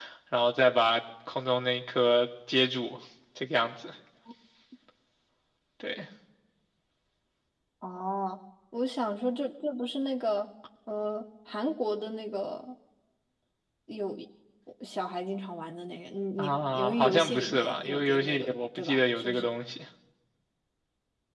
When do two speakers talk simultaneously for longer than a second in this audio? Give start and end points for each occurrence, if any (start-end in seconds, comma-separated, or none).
16.4-19.5